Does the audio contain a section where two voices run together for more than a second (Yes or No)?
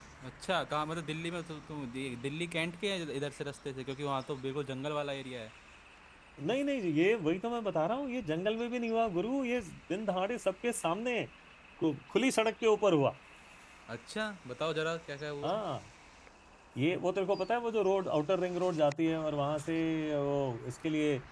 No